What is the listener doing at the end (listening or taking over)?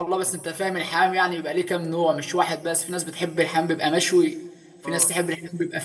listening